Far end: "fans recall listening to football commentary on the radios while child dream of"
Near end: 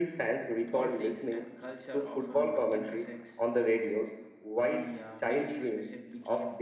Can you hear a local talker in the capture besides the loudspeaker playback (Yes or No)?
Yes